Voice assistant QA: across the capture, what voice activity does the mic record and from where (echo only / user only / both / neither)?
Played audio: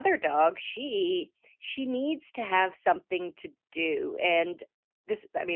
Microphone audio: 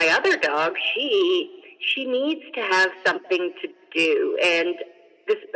echo only